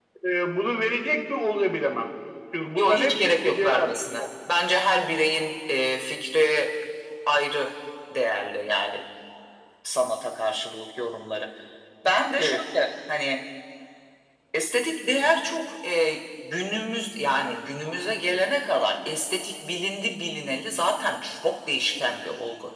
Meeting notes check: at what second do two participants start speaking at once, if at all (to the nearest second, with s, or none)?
3 s